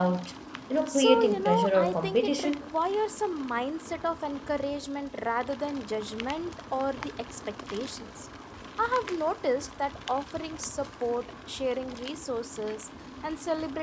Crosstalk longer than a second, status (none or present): present